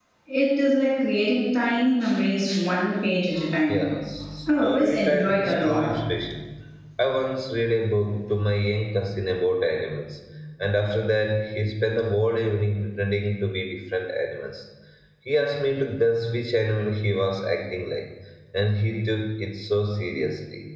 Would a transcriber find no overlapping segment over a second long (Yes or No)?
No